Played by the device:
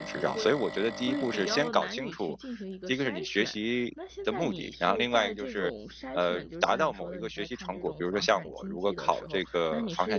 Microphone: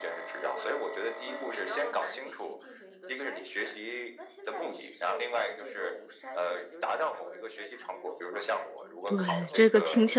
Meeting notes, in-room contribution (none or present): present